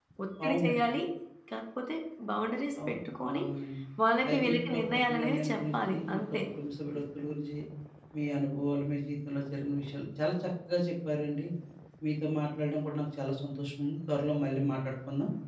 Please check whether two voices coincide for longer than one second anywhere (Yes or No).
Yes